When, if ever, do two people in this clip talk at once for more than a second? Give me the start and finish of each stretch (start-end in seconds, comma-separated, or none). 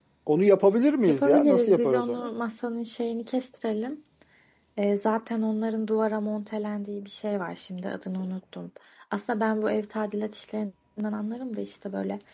1.1-2.3